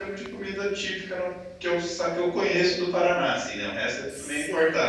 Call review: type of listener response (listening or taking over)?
taking over